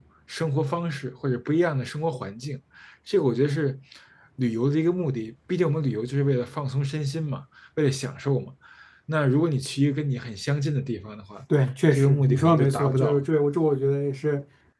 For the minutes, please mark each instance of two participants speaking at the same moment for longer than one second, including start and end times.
11.9-13.2

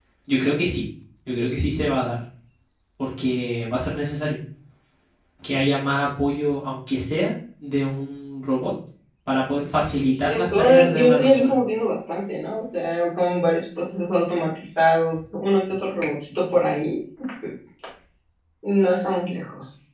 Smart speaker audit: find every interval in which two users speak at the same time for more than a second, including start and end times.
10.1-11.6

